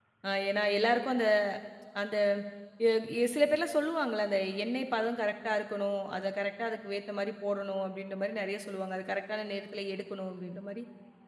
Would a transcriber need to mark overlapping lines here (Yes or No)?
No